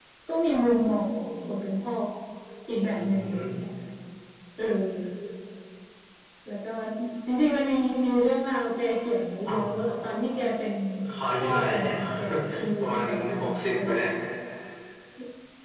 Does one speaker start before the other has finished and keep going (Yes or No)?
Yes